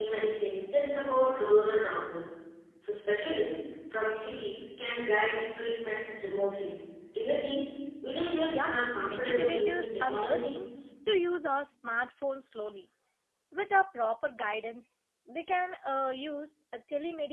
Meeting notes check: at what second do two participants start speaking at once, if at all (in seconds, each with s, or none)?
8.5 s